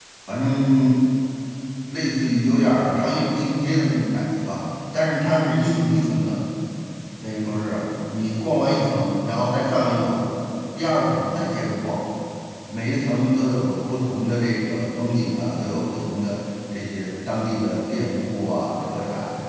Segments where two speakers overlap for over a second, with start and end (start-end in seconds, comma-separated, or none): none